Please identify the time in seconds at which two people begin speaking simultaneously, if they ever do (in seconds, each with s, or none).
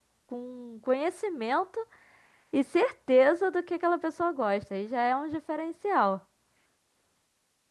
none